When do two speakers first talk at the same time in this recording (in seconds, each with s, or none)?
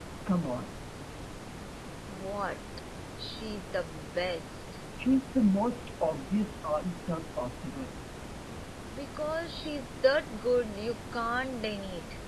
none